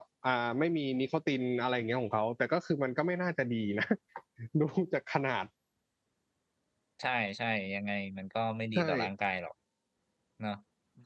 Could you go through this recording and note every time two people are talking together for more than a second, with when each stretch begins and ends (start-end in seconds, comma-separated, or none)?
none